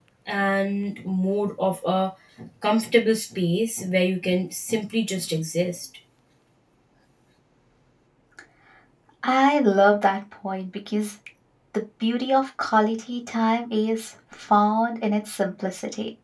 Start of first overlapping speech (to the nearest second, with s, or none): none